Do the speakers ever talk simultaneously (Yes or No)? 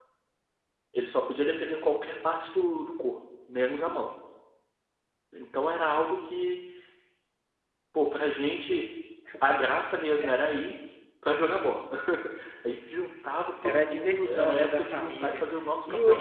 Yes